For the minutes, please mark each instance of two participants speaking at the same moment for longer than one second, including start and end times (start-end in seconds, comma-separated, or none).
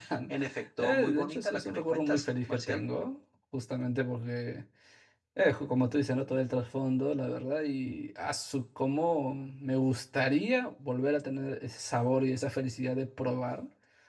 0.8-2.8